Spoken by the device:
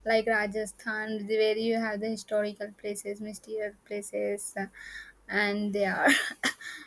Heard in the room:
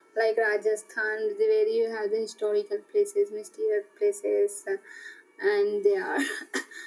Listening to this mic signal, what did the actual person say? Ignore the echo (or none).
none